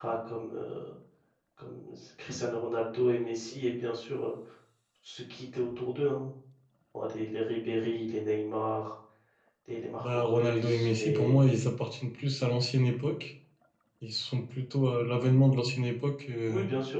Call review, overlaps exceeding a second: present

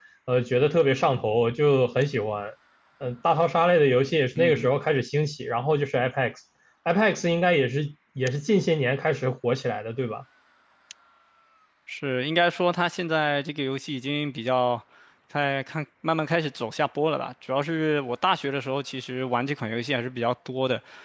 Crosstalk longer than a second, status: none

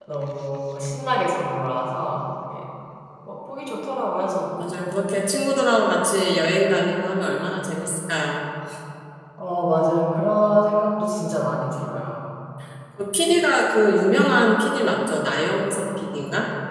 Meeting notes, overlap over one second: none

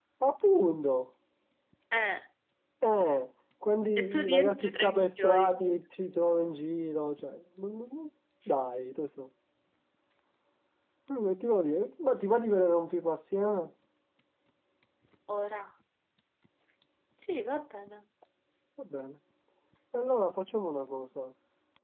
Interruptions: present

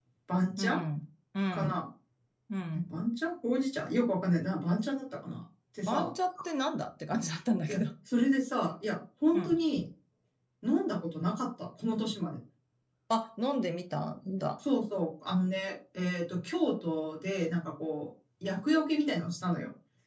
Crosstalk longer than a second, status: none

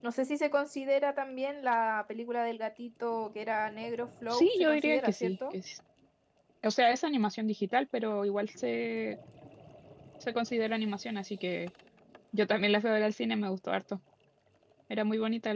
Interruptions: present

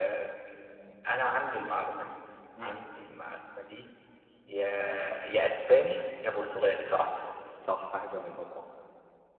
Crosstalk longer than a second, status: none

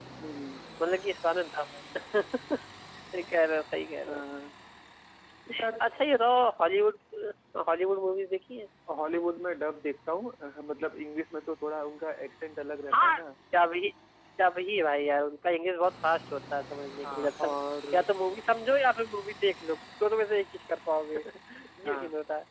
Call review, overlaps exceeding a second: none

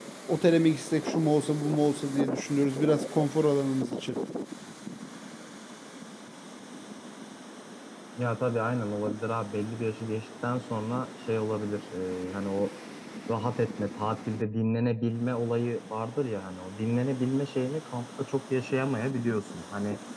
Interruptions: none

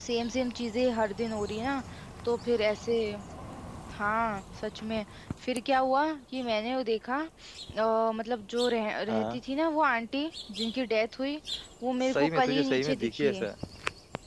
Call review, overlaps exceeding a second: present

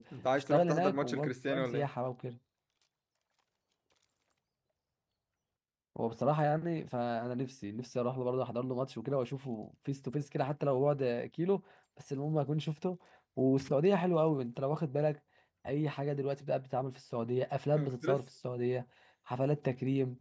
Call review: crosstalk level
present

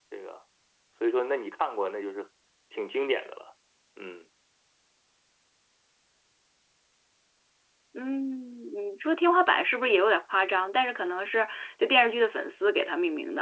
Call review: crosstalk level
none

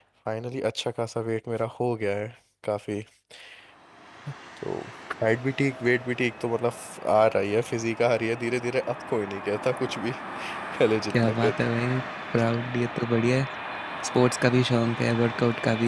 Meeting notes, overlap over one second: none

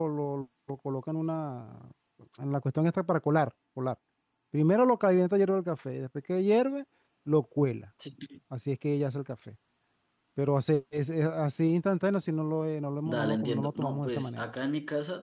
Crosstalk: present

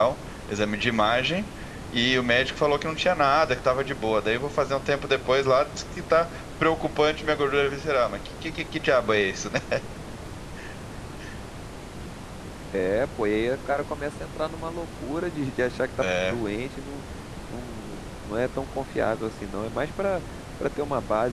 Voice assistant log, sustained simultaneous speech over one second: none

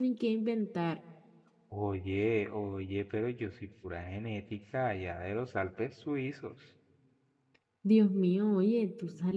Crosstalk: none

